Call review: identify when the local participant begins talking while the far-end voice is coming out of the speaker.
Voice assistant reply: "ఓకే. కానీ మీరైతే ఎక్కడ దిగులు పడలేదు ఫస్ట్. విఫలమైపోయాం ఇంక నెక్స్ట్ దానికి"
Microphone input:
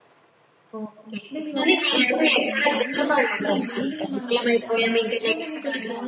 1 s

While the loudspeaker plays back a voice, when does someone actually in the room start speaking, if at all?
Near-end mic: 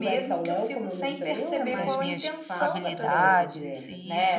2 s

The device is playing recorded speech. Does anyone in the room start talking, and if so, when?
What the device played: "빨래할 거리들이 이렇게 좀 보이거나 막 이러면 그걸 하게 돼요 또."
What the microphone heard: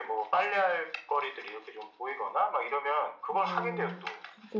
3 s

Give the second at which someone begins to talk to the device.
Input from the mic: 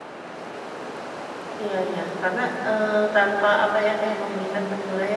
2 s

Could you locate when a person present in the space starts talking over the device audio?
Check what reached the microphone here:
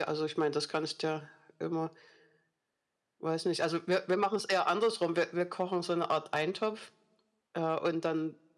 none

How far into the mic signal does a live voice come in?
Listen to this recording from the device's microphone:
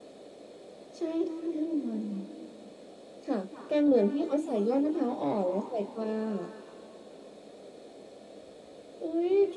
none

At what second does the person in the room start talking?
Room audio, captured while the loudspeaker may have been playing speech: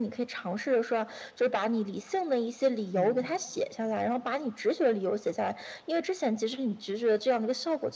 3 s

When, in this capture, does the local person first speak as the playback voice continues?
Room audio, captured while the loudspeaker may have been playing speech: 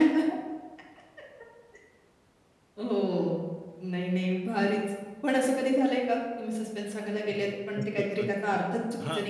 8 s

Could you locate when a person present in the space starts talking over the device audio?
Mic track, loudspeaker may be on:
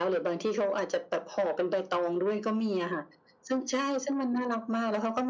none

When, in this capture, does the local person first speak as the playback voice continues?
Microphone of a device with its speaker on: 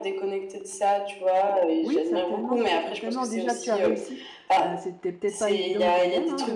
2 s

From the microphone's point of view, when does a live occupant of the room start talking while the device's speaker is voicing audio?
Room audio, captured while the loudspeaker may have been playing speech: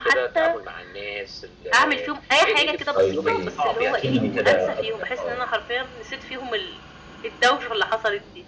3 s

